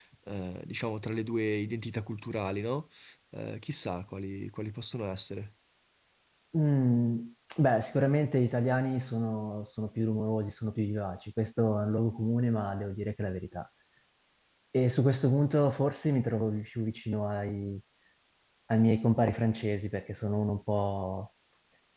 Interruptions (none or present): none